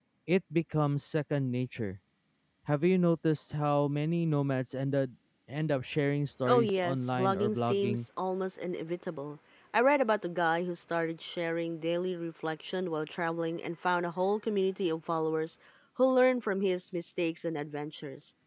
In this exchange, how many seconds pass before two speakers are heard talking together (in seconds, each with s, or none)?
6.5 s